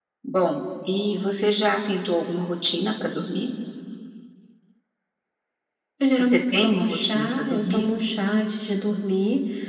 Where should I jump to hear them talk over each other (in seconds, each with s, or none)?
6.2 s